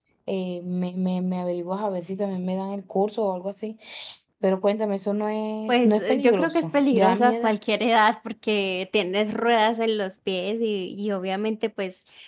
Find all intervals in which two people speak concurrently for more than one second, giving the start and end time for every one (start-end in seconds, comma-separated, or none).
5.7-7.5